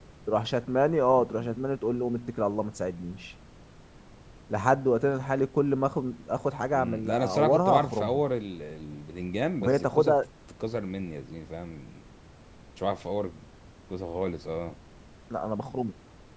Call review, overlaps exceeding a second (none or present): present